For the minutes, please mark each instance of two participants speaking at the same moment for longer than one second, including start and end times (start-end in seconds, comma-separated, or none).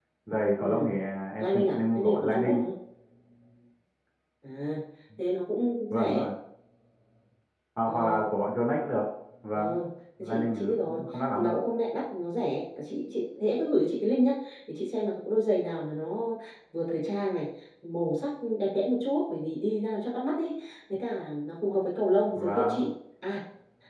1.4-2.6, 10.2-11.6